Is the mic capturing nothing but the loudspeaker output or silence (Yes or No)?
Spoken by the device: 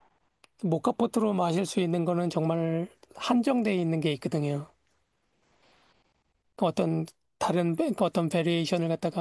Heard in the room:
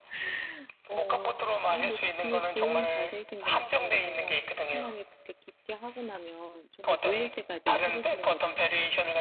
No